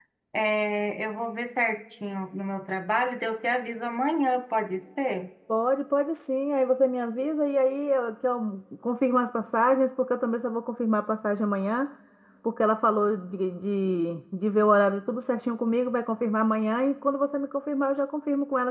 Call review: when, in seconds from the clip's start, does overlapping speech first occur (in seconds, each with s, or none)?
none